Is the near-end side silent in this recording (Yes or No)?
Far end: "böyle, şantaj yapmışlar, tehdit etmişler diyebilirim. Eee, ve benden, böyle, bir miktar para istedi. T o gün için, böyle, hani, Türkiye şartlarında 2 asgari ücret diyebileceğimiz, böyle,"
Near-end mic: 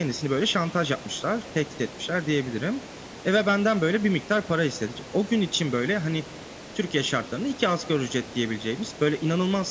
Yes